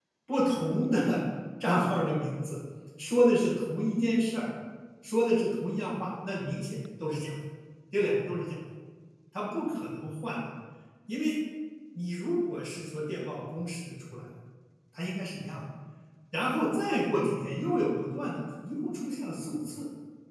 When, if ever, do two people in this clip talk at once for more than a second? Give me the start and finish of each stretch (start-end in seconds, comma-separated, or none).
none